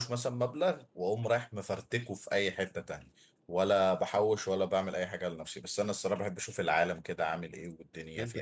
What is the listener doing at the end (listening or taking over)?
taking over